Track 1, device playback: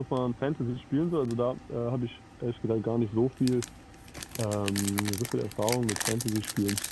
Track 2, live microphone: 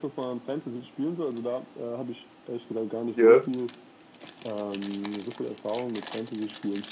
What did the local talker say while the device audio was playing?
Ja.

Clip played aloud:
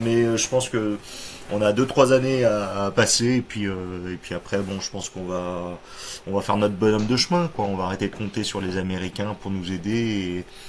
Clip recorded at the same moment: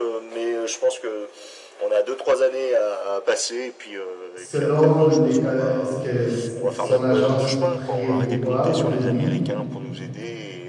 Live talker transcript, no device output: selon les, ca- ce que s- son agence prévoit ou prédit.

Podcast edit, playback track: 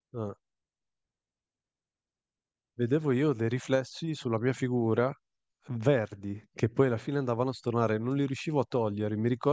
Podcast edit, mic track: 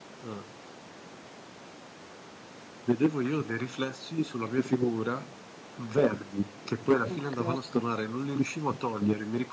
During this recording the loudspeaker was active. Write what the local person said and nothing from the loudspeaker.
Ok.

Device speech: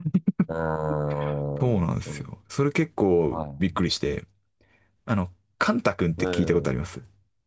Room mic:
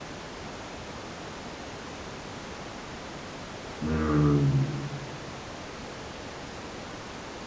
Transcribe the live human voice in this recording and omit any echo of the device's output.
うん。

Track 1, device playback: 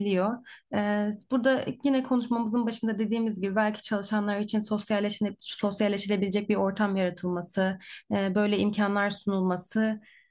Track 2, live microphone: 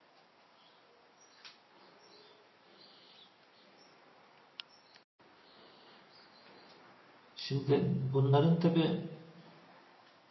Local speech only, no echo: Şimdi bunların tabii

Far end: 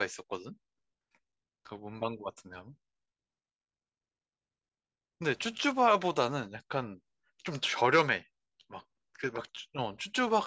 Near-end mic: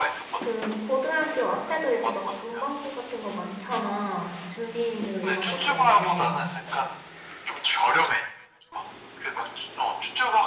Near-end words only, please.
그 고등학교 앞에도 이제 막 문방구 같은 거 많잖아. 준비물 이런 것 때문에.

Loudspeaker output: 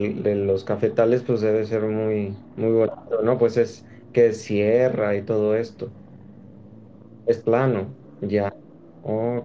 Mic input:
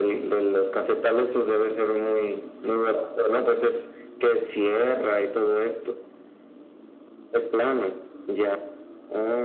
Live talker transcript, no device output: none

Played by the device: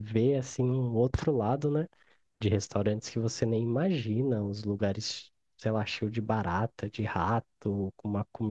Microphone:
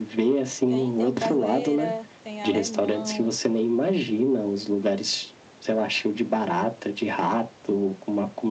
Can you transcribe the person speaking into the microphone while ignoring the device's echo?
Tem, tem brasileira, tem alemão,

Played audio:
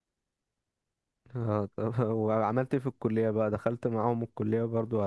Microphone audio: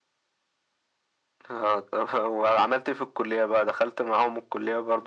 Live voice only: none

